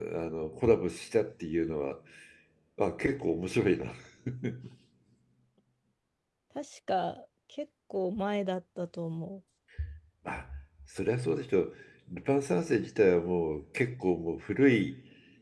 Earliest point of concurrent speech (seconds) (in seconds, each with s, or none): none